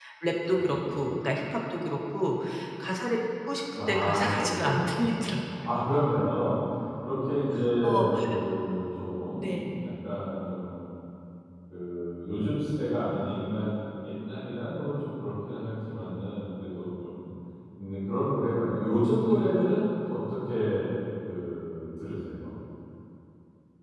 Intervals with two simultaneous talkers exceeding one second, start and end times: 3.9-5.2

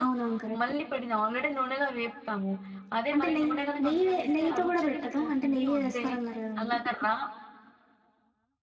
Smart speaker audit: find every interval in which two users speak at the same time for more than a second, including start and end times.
3.1-6.0

